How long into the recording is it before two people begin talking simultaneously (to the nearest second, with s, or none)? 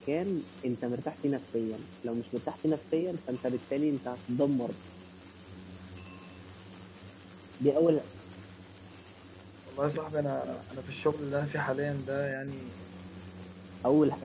none